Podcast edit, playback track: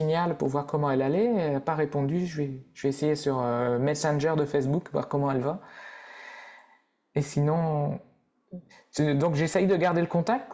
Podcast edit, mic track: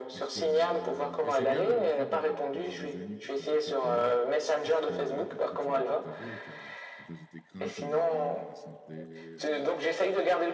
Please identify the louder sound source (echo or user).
echo